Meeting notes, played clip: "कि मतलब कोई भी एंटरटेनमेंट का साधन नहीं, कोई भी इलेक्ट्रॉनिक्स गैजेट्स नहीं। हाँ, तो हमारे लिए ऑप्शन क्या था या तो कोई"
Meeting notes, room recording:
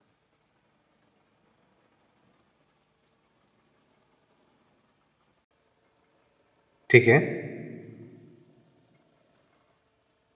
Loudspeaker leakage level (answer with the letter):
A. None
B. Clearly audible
A